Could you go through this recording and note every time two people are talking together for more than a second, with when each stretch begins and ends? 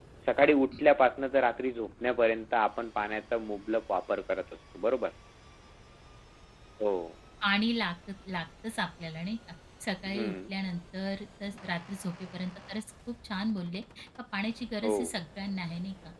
none

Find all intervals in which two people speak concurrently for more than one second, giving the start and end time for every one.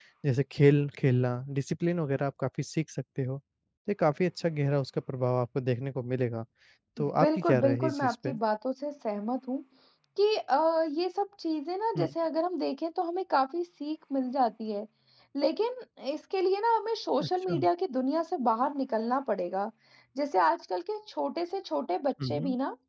7.0-8.4

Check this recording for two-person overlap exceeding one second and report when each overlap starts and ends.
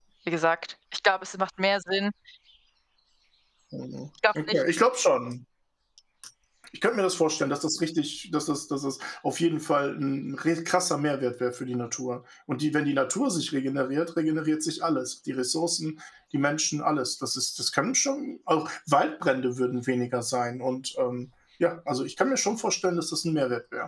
none

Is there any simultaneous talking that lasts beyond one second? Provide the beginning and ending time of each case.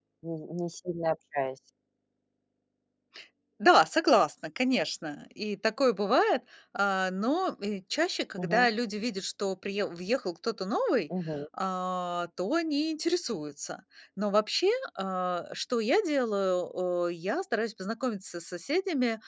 none

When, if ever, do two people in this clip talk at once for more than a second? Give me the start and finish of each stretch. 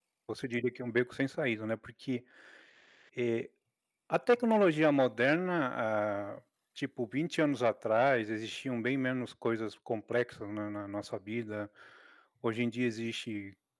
none

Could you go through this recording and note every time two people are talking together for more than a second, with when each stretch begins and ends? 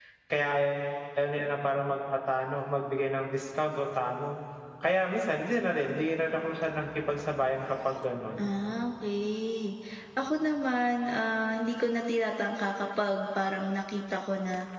none

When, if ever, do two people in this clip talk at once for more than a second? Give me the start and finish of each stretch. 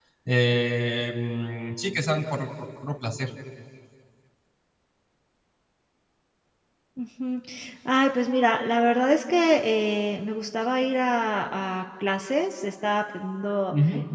none

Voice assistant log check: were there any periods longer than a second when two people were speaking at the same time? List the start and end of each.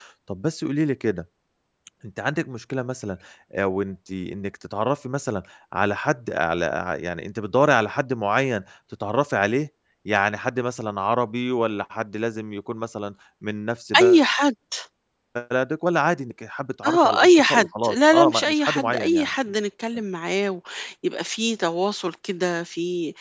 16.9-19.3

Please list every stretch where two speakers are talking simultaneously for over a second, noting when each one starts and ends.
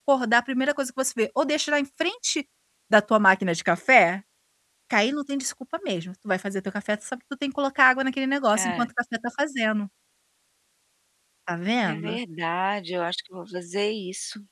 none

